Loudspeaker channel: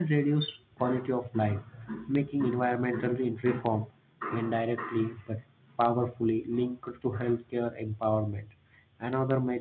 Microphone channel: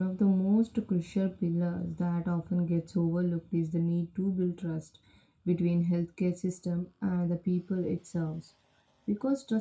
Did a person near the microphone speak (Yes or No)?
Yes